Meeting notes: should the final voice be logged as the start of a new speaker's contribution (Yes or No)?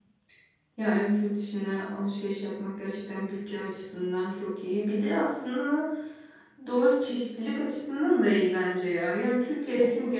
No